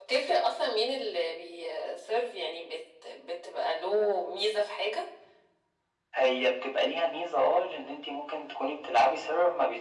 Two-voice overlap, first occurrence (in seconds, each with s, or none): none